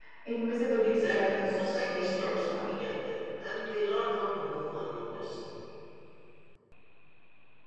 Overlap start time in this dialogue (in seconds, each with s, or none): 0.8 s